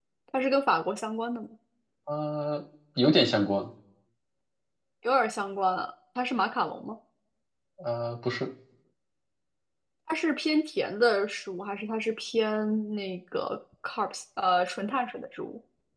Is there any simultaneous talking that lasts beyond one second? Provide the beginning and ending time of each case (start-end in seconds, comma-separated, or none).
none